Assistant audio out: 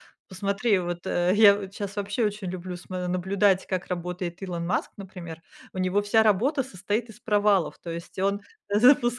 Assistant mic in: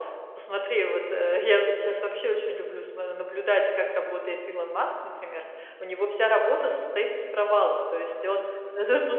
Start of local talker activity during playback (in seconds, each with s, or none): none